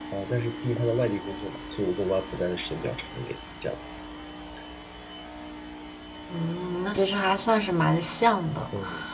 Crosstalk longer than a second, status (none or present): none